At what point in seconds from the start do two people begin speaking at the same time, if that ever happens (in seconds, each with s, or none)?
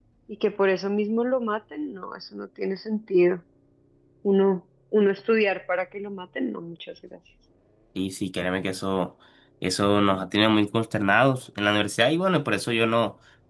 none